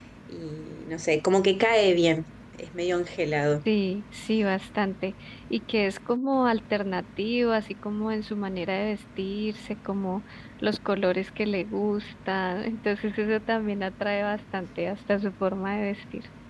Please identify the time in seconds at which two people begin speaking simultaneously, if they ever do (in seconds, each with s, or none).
none